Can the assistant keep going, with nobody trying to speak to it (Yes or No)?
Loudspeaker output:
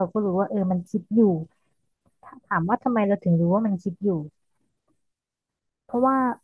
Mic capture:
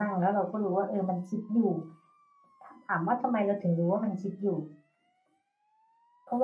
Yes